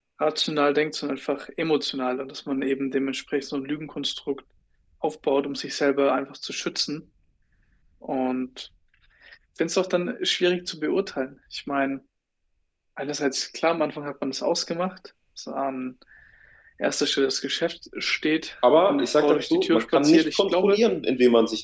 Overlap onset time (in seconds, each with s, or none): 18.6 s